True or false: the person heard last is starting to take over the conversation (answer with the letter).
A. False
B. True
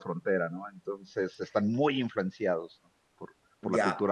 B